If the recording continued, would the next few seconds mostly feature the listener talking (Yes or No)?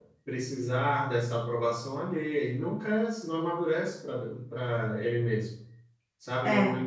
No